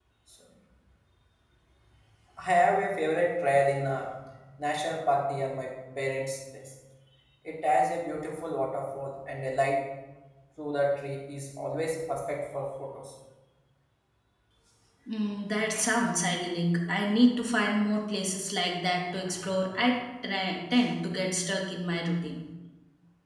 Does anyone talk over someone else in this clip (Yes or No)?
No